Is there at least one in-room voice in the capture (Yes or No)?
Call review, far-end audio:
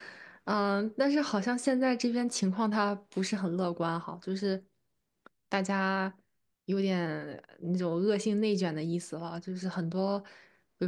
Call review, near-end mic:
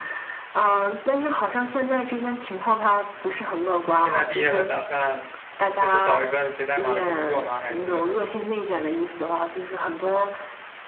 Yes